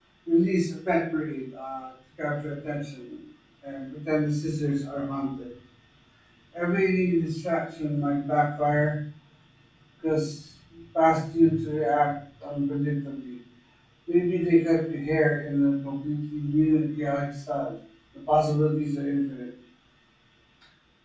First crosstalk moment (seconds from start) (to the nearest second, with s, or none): none